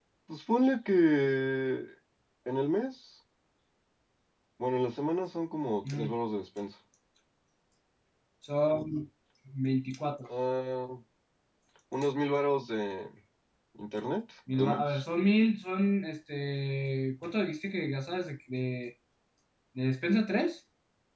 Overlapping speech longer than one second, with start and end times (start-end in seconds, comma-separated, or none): none